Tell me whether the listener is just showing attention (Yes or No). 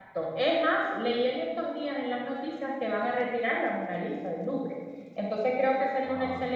Yes